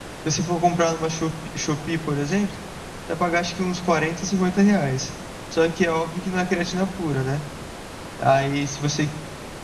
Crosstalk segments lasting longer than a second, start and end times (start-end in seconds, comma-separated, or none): none